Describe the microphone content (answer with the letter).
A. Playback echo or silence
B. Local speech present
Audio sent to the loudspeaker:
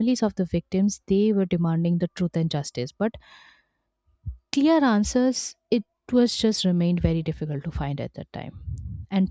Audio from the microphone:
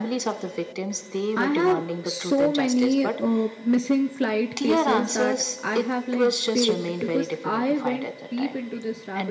B